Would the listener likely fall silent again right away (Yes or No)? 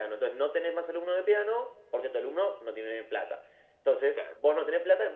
Yes